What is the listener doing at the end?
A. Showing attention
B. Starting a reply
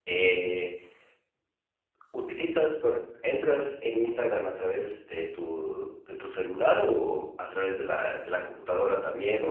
B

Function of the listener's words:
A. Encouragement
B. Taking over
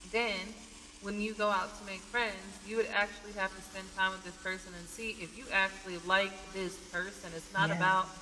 A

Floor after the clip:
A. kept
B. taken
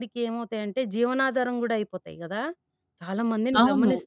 A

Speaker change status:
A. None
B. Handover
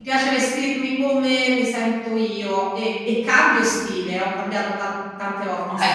B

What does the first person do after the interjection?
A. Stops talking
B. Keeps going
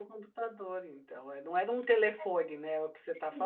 A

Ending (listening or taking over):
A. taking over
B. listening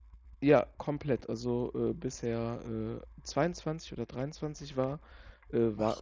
B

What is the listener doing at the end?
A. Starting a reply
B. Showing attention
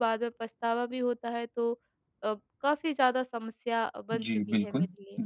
A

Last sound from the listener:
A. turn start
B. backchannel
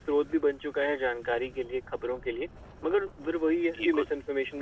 B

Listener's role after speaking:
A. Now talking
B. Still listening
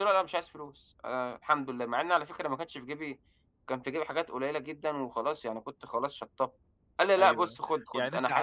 A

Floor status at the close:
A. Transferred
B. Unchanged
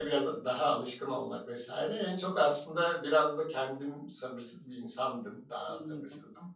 B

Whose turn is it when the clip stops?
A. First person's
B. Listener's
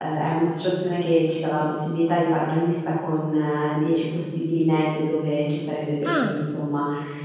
A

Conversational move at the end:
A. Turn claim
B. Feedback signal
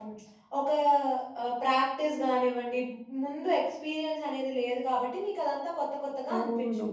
A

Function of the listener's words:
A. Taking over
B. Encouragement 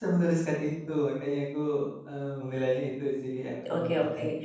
A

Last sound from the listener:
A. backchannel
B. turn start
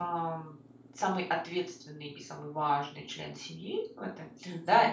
A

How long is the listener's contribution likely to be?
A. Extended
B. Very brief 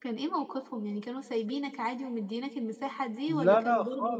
A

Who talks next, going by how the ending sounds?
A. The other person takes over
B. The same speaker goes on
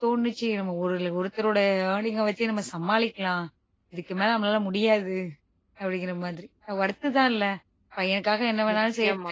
B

